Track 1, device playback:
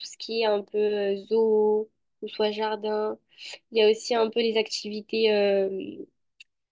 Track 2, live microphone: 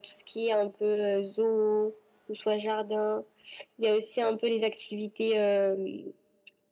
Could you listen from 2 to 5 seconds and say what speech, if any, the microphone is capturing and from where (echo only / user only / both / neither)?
echo only